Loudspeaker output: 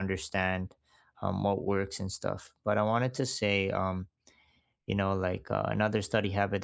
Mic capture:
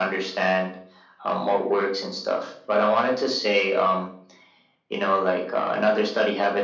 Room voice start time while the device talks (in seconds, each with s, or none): none